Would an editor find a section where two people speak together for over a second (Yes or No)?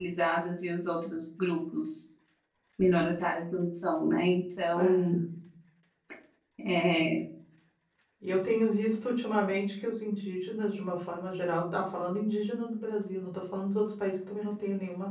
No